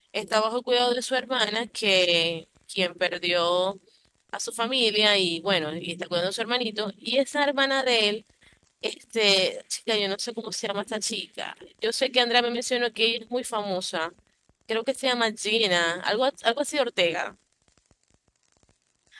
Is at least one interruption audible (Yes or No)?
No